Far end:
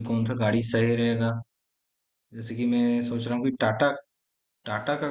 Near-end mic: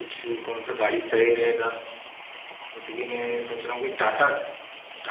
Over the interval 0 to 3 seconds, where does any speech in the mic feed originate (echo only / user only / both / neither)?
echo only